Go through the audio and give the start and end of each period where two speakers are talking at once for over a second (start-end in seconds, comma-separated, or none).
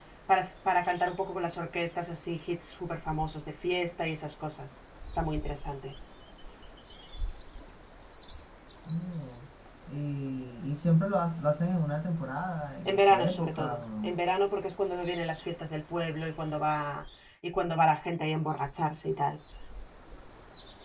12.8-14.2